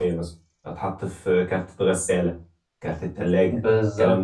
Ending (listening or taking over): taking over